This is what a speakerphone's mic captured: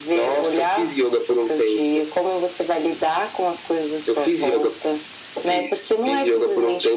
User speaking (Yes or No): No